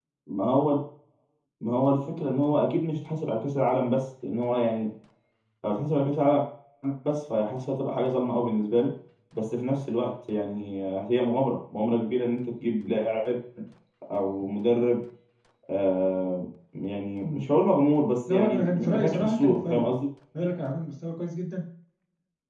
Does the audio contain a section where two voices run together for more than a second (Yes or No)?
Yes